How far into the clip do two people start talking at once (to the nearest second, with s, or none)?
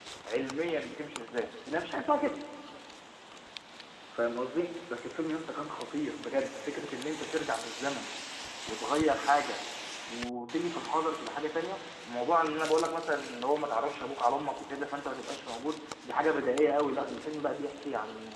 none